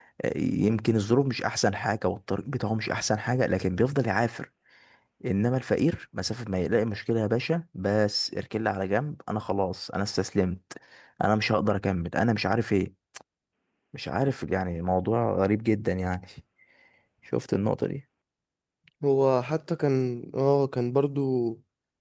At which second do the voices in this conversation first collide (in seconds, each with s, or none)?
none